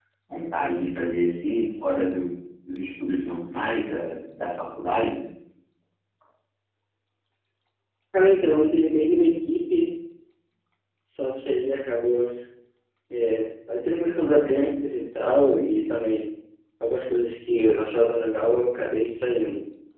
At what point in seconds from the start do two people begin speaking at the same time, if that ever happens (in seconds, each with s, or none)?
none